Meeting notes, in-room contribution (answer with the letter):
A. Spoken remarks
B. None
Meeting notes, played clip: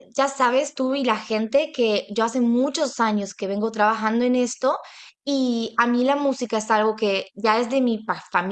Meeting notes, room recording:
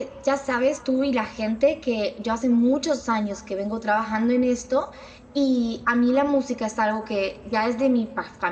B